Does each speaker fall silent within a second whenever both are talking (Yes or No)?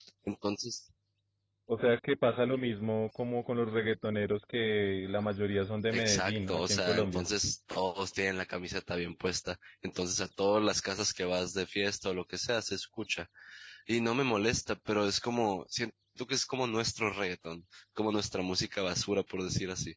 No